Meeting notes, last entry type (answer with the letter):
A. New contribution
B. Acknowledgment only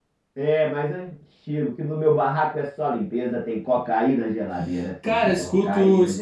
A